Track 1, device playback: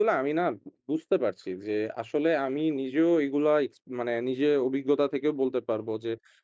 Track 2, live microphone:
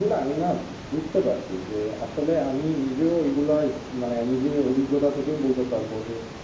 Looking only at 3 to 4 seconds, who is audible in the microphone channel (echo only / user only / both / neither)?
echo only